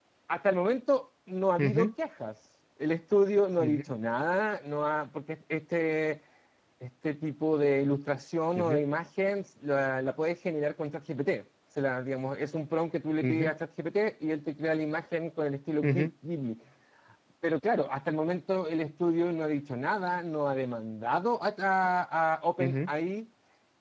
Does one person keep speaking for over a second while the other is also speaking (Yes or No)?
No